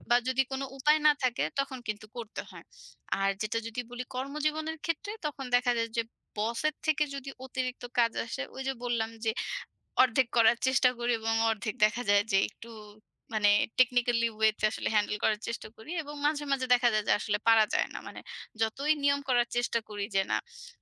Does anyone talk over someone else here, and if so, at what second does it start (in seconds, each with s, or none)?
none